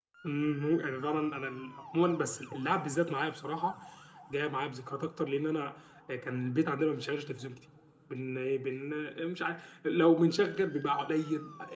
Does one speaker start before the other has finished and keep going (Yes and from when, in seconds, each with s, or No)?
No